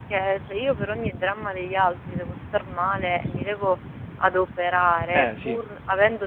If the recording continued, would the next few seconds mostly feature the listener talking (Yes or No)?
No